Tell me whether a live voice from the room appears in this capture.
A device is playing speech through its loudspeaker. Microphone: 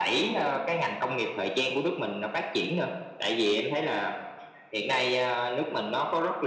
No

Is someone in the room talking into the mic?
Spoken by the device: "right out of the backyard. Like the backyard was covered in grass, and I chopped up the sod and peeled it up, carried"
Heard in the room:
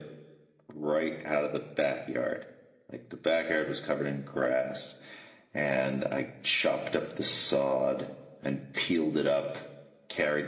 No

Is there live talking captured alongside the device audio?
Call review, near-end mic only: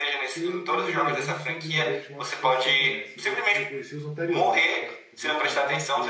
Yes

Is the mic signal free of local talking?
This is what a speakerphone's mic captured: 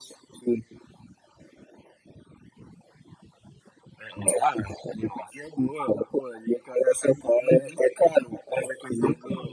Yes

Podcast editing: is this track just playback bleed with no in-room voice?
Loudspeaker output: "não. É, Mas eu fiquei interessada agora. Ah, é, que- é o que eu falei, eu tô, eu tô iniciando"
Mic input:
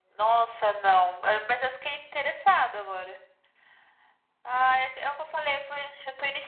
Yes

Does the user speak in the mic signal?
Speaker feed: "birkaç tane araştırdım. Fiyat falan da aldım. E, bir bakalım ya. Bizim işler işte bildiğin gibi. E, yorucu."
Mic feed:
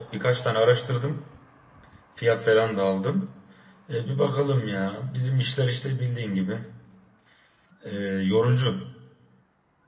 No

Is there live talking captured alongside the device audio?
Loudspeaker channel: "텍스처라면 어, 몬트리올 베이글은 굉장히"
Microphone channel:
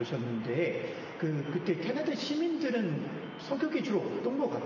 Yes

